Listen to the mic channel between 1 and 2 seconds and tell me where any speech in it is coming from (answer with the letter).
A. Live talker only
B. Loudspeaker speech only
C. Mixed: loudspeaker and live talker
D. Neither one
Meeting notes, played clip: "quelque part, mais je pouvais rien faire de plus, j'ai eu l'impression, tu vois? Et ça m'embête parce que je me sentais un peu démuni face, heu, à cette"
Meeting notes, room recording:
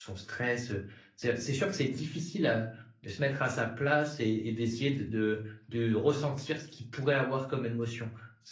A